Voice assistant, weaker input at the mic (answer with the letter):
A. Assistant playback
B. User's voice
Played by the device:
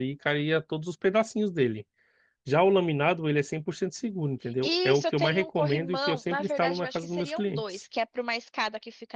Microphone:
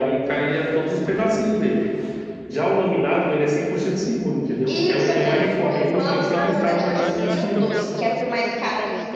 B